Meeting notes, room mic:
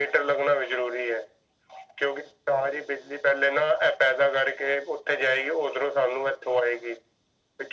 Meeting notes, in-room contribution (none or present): none